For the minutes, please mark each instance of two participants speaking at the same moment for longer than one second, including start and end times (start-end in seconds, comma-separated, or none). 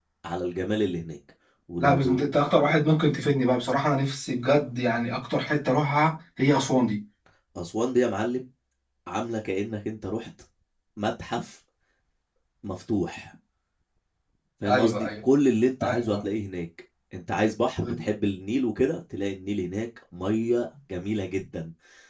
none